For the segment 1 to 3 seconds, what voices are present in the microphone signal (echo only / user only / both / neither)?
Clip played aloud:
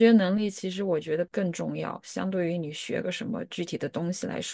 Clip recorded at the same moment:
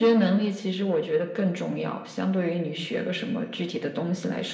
echo only